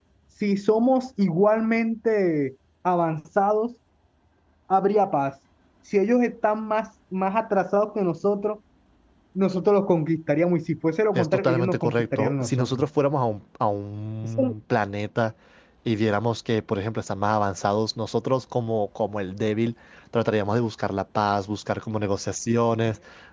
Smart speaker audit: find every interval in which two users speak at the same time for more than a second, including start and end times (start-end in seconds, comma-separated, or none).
11.1-12.8